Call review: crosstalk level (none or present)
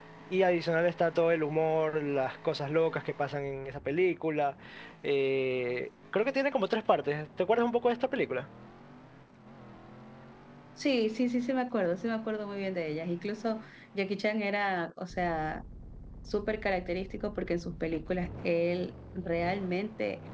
none